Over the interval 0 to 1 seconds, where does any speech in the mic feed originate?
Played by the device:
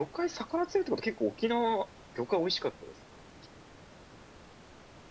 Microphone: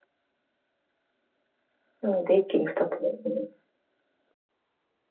neither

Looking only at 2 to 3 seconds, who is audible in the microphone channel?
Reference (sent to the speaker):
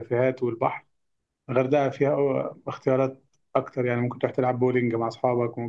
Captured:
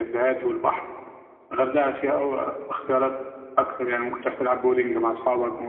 echo only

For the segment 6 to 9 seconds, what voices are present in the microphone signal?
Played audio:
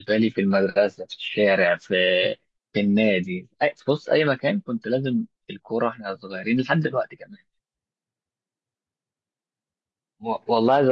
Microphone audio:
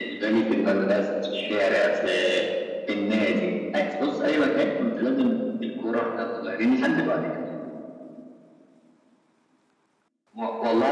echo only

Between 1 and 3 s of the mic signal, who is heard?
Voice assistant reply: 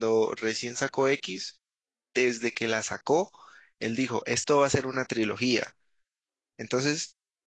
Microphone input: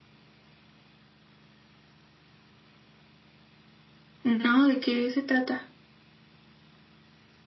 neither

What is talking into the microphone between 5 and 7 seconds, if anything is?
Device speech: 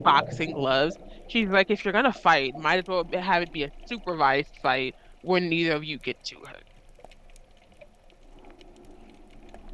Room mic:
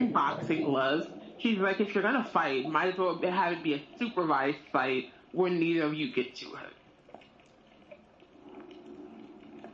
echo only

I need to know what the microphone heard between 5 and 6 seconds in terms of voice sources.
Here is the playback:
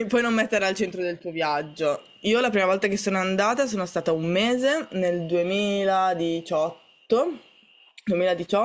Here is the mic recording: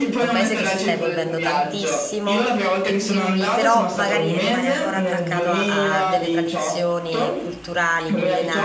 both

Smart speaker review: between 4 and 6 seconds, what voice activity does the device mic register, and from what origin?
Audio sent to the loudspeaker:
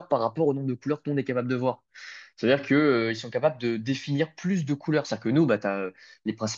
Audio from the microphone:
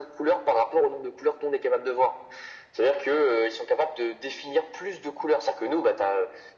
echo only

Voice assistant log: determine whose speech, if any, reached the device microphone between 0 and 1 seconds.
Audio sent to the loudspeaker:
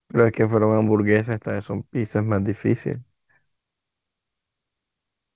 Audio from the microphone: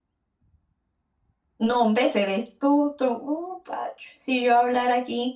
neither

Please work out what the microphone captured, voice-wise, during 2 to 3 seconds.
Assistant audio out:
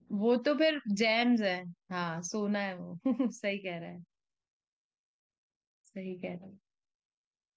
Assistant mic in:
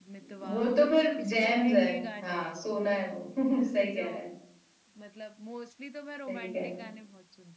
both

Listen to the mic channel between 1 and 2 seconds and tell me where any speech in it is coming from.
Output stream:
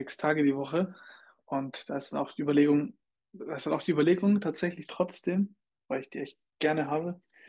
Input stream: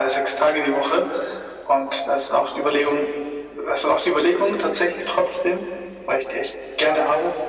echo only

